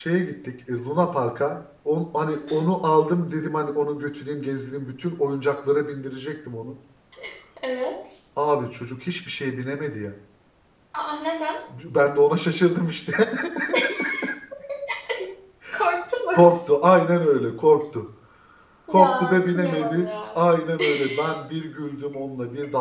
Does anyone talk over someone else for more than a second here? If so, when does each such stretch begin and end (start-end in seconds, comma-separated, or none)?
18.9-20.4